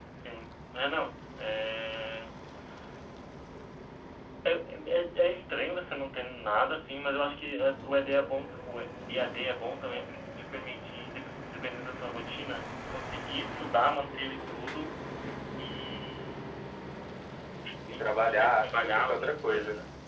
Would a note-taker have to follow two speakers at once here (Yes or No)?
Yes